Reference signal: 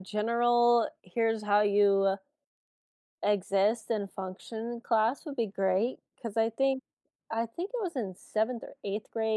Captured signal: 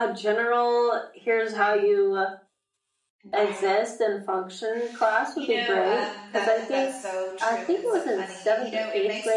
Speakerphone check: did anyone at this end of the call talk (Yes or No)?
Yes